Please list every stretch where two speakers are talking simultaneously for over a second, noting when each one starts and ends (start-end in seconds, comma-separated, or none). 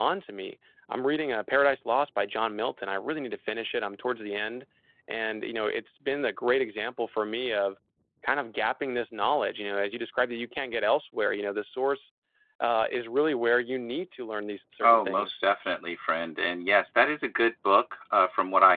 none